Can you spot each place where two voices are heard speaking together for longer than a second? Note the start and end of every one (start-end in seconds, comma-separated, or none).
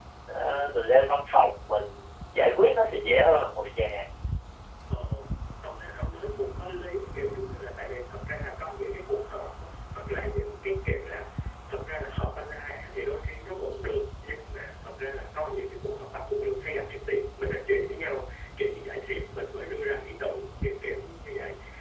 none